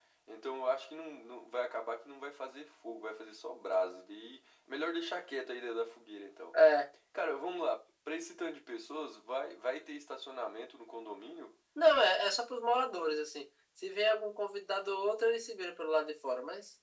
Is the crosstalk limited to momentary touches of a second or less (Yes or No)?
Yes